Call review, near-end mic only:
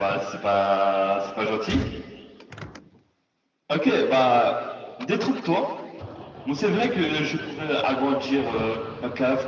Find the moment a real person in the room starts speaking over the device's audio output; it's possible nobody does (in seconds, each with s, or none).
none